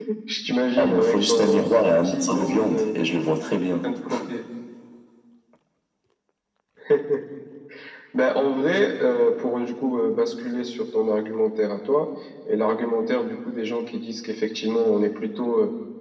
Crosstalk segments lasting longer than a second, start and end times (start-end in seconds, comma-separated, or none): 0.8-2.8